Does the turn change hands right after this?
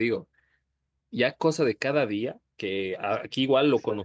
No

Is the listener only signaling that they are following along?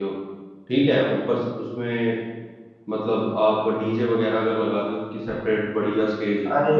No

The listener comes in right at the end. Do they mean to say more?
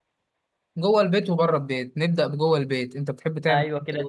Yes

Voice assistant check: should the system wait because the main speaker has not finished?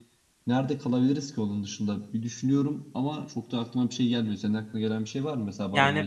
No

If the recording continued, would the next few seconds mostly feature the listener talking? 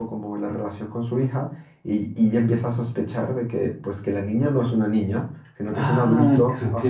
Yes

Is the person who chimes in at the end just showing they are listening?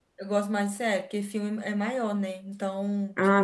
Yes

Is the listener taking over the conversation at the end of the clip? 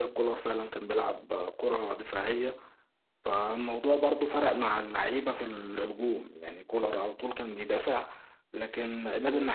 No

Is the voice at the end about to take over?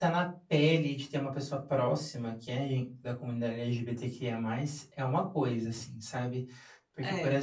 No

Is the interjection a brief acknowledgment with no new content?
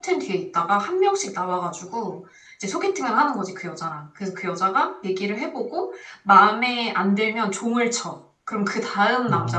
No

